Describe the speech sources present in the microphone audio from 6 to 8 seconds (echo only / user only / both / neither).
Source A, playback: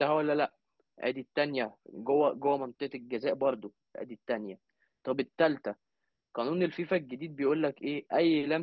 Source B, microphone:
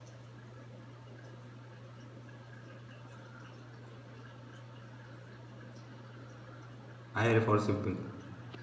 user only